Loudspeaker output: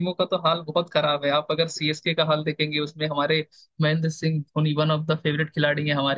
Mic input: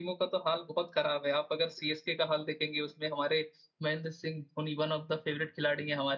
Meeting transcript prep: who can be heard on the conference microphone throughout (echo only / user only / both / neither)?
echo only